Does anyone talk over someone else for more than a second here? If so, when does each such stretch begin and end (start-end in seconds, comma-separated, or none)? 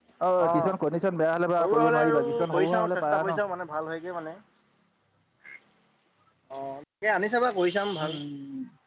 1.6-3.4